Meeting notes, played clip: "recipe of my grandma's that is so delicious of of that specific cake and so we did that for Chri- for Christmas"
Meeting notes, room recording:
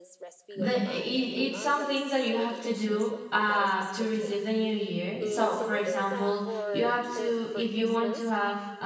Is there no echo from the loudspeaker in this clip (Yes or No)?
No